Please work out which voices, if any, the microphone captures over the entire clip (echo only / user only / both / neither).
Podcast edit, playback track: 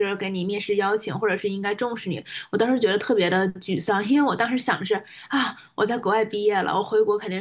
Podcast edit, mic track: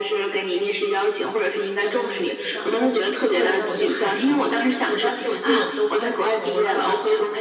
both